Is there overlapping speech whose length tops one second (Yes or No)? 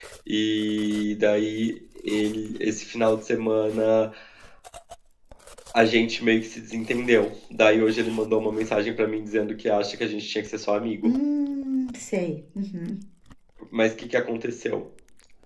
No